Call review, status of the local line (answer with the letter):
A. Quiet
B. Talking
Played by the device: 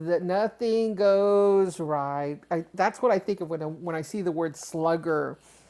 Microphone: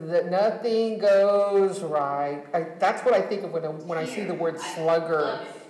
B